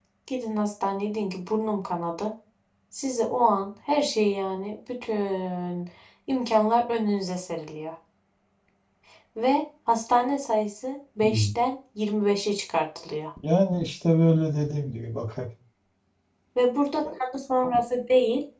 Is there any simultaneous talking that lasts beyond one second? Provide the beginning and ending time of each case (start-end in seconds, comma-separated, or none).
none